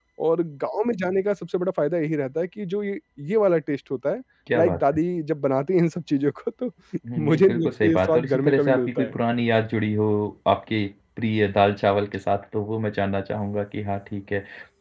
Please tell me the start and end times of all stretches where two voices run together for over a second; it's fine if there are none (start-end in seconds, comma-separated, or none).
7.2-9.2